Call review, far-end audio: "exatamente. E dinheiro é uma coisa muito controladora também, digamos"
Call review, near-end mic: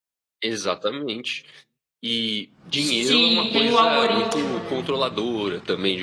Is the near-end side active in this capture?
Yes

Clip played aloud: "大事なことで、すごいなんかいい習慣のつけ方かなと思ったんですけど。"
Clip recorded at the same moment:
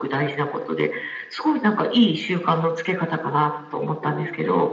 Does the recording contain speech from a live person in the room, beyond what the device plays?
Yes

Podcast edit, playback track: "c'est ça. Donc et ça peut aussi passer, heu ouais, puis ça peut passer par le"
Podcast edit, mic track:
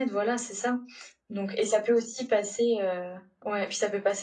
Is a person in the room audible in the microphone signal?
No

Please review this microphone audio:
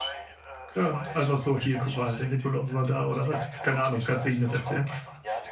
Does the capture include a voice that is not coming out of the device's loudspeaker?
Yes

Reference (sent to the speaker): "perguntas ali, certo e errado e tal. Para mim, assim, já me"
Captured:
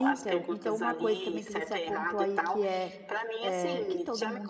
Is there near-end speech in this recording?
Yes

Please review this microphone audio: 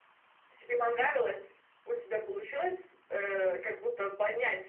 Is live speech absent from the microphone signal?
Yes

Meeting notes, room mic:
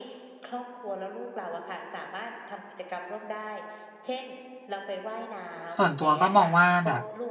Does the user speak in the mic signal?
Yes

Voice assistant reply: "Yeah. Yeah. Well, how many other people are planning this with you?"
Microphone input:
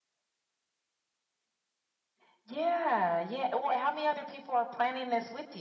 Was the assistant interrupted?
No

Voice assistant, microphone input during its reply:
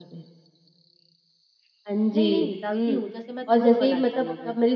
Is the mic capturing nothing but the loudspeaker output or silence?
No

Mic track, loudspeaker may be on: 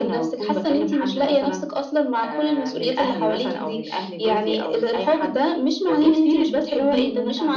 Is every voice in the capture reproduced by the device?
Yes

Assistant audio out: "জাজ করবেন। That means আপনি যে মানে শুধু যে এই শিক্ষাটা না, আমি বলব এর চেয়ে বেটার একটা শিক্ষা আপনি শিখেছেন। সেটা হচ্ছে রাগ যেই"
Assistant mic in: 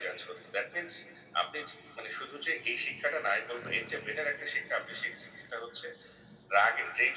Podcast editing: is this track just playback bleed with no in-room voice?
Yes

